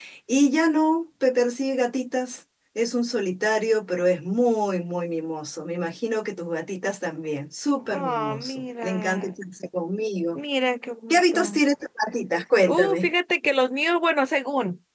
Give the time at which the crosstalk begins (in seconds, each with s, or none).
7.9 s